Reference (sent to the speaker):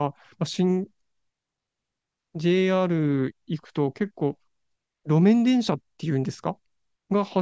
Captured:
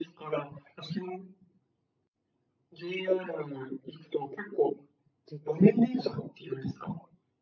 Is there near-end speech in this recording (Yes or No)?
Yes